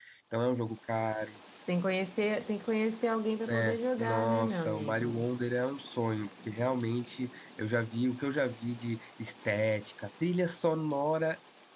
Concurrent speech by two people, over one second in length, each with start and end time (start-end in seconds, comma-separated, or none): 3.5-5.1